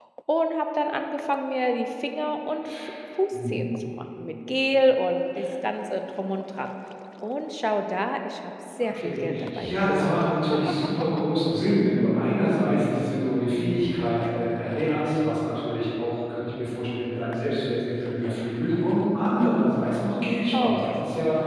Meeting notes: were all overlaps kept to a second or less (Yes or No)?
No